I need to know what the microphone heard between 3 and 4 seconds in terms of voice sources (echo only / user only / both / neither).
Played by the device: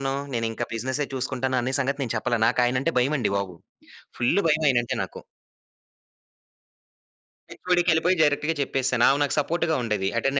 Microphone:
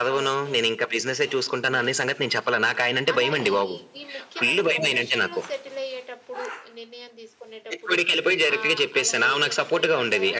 both